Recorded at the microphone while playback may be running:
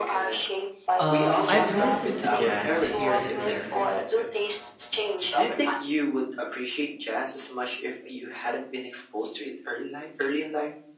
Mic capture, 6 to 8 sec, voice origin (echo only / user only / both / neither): echo only